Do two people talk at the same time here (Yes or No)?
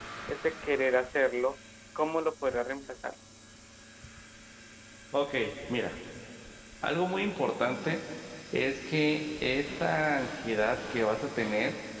No